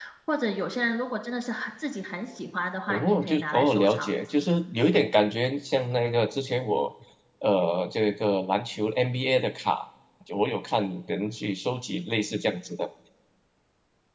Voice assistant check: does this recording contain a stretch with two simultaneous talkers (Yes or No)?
Yes